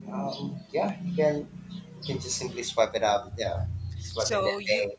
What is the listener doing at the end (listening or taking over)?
taking over